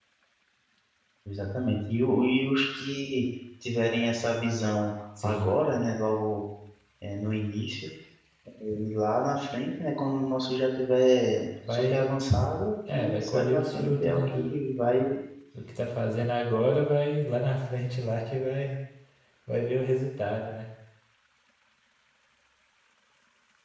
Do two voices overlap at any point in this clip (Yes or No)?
Yes